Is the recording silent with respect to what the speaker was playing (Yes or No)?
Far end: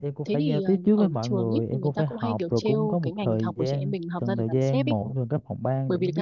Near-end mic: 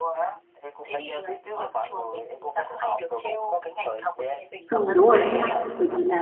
No